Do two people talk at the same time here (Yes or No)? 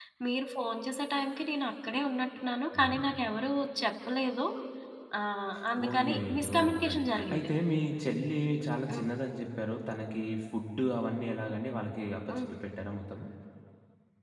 Yes